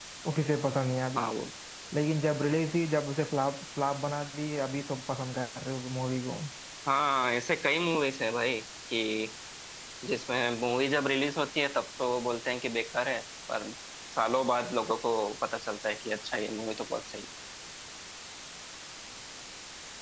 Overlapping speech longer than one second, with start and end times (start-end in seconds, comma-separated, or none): none